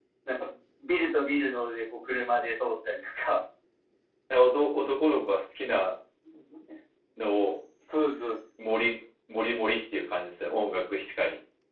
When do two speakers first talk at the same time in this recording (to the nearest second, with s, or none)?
none